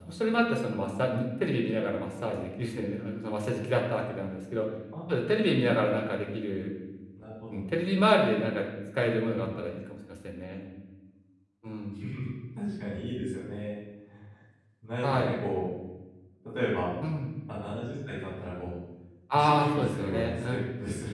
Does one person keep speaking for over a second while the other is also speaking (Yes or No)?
Yes